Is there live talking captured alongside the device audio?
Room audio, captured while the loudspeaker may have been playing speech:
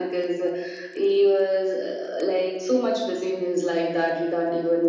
No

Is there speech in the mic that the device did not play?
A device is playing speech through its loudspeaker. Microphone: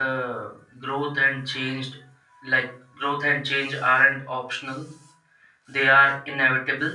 Yes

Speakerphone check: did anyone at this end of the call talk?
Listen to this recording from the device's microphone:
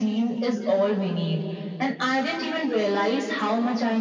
No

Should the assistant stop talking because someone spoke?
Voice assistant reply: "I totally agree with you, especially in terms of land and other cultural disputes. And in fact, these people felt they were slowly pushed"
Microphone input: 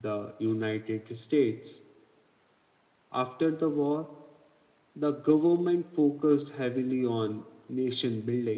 Yes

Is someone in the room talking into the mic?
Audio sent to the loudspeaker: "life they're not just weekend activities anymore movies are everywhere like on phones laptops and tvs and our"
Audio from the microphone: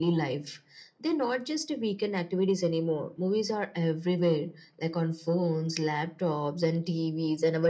No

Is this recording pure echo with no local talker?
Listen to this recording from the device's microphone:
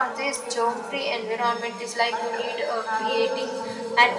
No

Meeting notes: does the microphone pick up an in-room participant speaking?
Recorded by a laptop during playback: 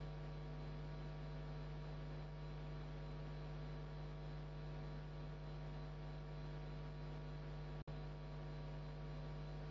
No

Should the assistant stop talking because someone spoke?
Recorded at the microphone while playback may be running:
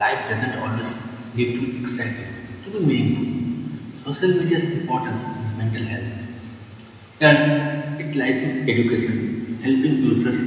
Yes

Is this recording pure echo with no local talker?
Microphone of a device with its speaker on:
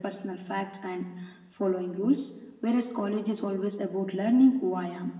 Yes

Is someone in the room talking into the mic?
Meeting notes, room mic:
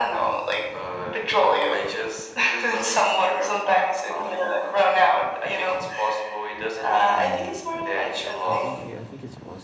Yes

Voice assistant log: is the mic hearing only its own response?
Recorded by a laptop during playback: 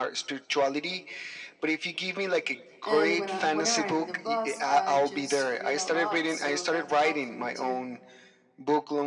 No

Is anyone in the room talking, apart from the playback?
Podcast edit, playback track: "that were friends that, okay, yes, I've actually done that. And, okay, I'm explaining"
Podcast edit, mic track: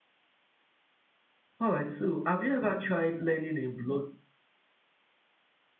Yes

